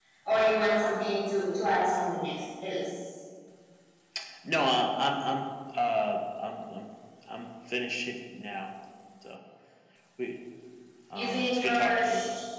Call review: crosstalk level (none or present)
present